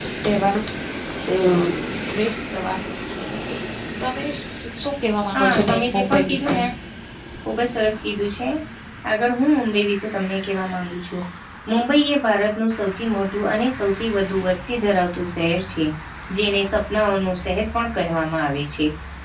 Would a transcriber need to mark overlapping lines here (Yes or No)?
Yes